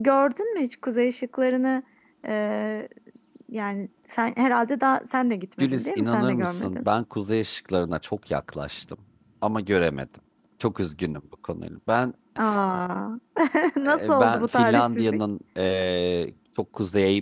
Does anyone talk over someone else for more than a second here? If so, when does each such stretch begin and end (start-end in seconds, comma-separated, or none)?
5.6-6.9, 13.9-15.2